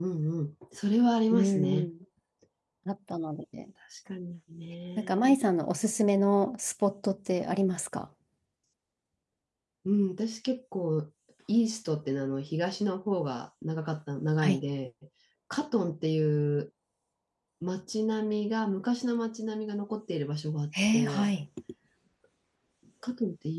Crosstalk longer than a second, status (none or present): none